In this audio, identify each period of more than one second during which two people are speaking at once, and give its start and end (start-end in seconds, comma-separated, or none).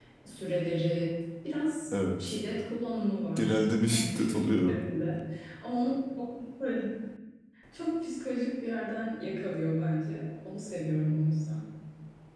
3.4-4.8